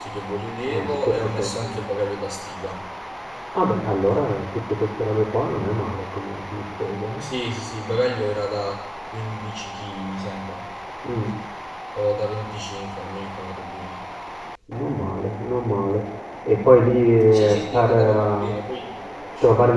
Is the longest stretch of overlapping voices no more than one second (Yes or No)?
No